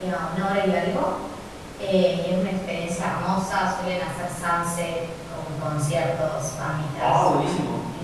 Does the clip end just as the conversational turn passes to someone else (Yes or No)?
Yes